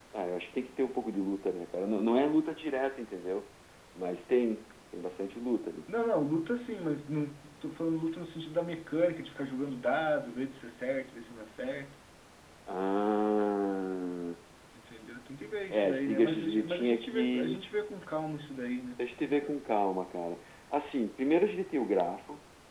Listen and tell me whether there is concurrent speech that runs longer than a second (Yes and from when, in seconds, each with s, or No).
Yes, from 15.7 s